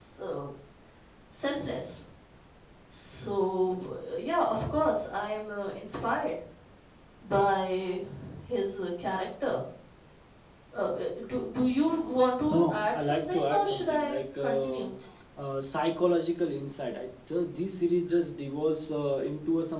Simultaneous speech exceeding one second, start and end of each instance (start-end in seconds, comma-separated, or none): 12.5-14.8